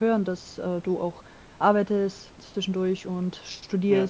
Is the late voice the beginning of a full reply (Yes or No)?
No